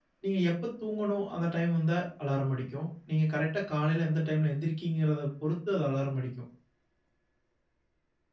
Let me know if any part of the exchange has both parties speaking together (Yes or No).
No